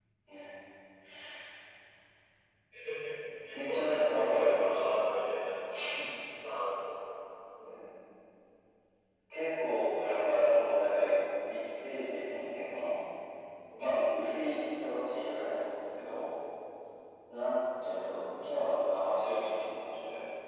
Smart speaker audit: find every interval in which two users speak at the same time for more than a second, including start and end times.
3.7-4.9

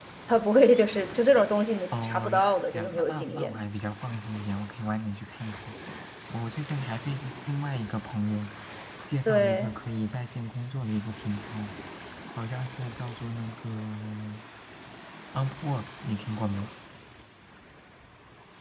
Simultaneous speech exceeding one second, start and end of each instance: 2.0-3.6

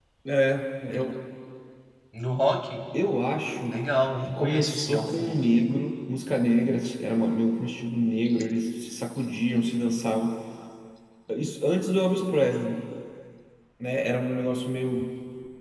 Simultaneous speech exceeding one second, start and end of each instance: 4.2-5.5

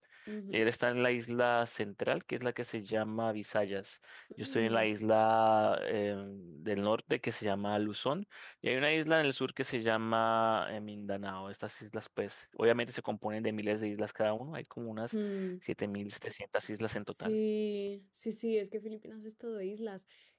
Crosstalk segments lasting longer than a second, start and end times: none

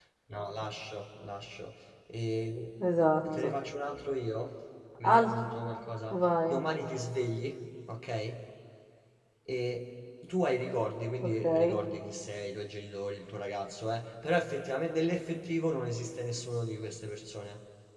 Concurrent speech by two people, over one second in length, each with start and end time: none

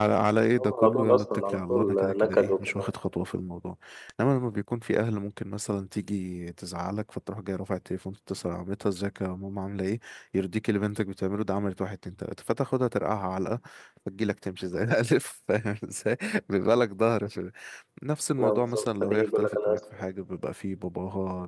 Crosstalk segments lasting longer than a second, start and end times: 0.6-2.9, 18.4-19.8

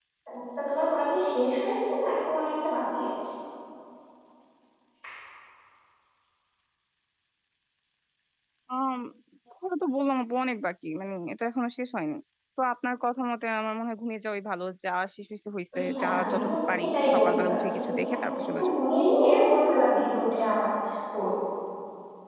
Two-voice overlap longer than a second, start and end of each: 15.9-18.7

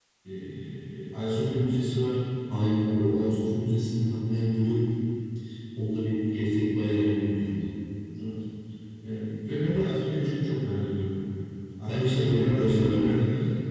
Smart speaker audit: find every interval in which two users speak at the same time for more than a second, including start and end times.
11.9-13.1

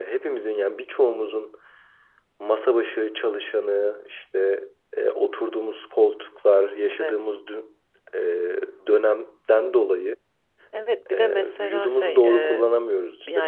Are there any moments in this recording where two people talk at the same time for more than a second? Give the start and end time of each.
11.1-12.6

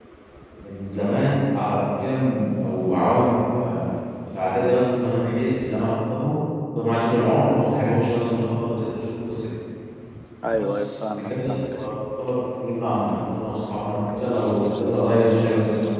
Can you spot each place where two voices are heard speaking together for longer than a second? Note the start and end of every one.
10.6-12.0

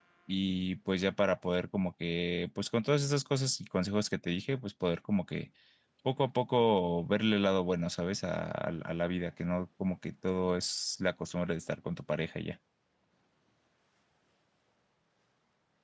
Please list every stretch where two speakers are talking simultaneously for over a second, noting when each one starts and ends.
none

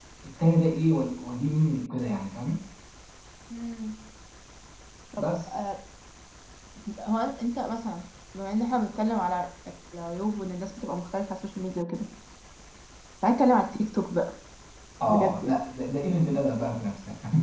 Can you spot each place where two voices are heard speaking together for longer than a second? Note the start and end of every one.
none

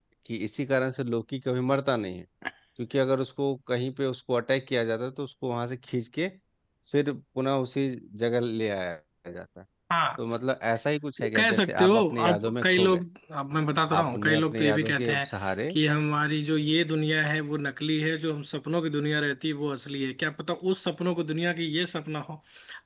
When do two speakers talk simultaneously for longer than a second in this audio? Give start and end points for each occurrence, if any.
11.2-13.0, 14.0-15.3

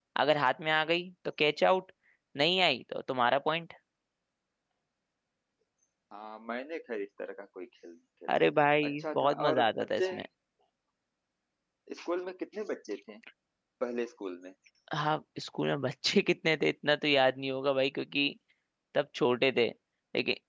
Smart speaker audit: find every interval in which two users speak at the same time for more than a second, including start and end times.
8.9-10.2

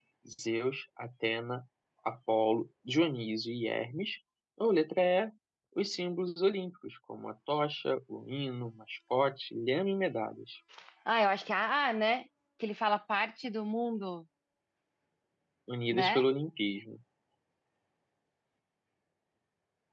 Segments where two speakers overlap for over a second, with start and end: none

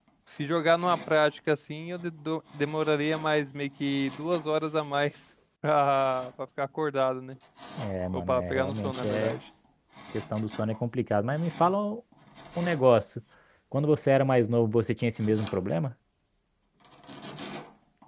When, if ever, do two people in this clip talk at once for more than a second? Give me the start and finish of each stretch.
8.1-9.4

